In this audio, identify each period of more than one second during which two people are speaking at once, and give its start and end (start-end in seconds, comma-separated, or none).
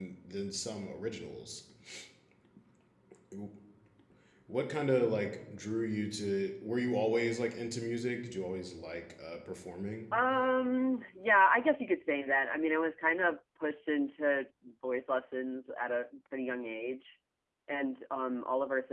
none